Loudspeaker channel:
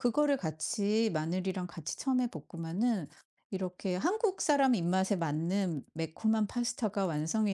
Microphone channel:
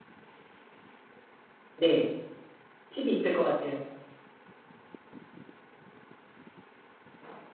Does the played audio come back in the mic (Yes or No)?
No